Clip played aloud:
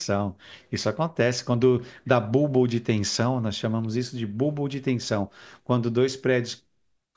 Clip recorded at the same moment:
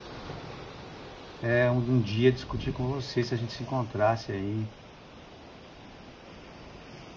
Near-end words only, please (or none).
é, um, um dia discutir com você se a gente se encontrasse aí,